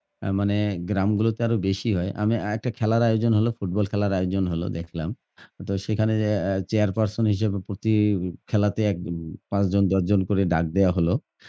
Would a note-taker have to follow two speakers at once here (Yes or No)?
No